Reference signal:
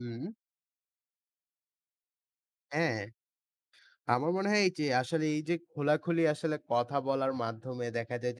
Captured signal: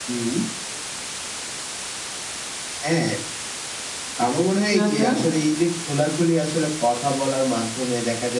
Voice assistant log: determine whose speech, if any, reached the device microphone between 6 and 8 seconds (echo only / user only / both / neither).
echo only